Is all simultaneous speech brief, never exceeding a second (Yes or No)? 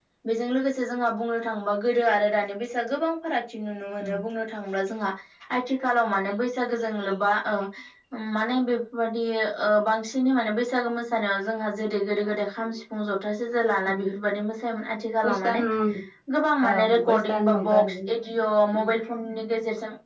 No